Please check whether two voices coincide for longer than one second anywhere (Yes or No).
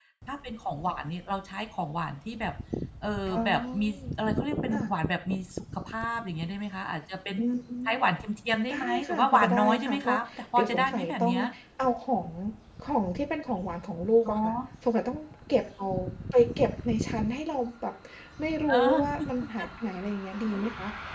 Yes